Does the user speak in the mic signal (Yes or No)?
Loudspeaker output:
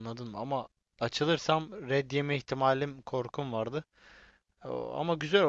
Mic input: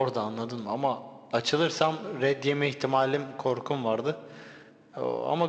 No